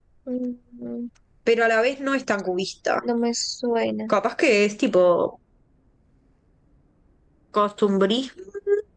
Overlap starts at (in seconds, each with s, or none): none